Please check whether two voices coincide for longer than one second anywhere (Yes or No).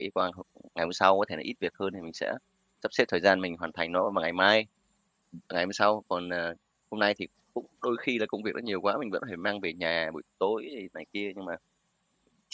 No